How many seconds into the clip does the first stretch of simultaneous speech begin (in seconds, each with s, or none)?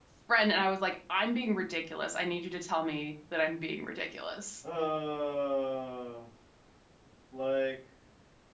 none